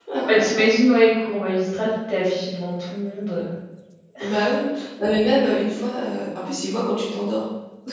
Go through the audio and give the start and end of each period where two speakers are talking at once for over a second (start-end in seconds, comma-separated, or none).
none